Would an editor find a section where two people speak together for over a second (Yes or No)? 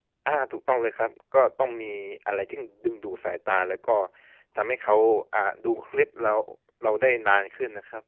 No